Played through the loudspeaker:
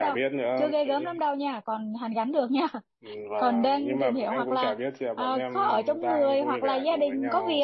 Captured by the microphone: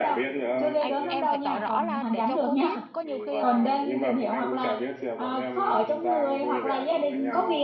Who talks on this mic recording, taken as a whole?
both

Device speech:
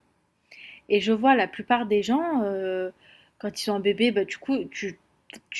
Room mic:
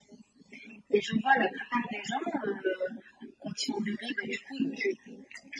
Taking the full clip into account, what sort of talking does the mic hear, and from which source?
echo only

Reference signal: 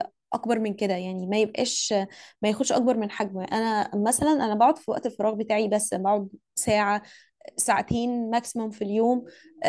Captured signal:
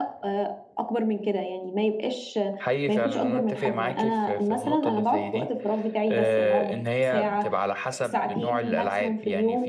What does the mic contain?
both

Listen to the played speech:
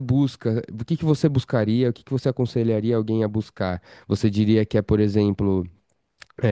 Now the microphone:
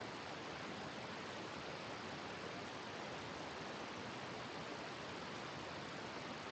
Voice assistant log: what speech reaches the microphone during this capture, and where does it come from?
neither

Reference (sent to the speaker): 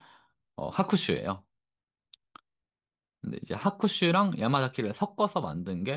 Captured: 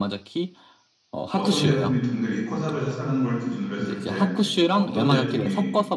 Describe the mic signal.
both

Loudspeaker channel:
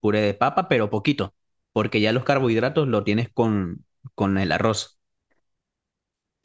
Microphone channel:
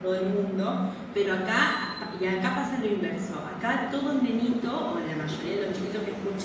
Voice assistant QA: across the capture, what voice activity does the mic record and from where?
user only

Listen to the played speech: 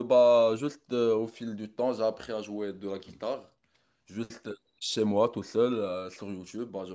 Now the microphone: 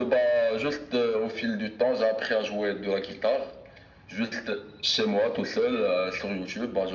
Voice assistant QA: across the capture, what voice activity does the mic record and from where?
echo only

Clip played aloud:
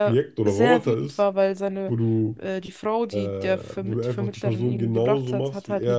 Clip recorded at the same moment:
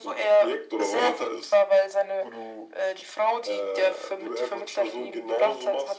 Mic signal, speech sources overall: echo only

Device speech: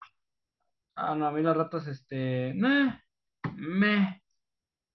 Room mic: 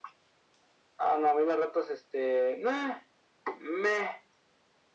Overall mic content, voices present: echo only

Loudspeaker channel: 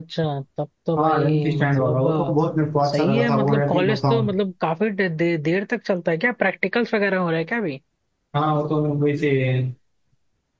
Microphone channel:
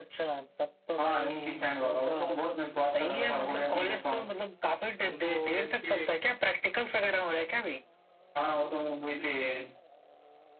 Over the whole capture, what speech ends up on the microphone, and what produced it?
both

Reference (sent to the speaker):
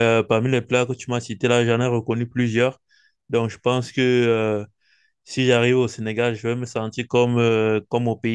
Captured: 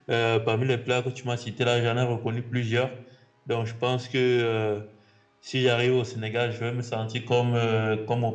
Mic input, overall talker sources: echo only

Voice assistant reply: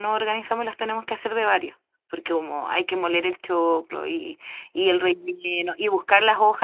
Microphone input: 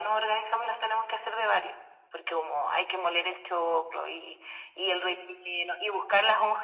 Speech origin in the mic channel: echo only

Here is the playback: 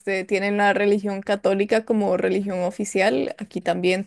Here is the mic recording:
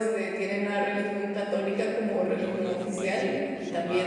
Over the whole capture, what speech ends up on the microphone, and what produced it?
both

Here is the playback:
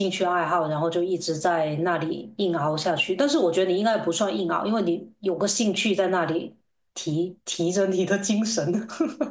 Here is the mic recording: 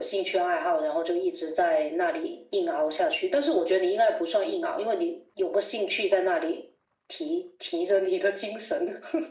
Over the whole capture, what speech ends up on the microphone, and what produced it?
echo only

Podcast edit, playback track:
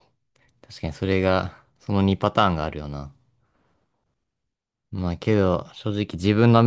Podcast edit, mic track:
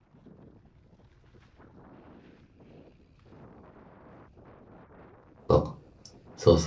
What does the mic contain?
user only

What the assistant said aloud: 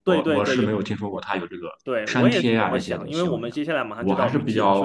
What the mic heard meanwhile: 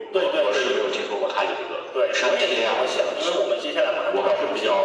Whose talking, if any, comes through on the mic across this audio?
echo only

